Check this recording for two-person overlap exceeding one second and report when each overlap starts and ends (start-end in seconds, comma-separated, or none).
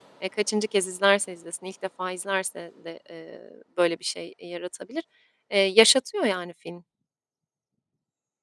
none